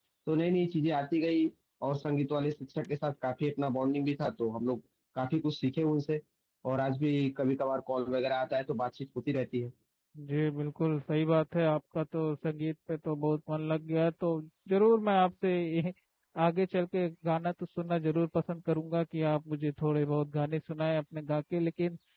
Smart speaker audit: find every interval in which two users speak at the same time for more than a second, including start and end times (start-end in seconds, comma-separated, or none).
none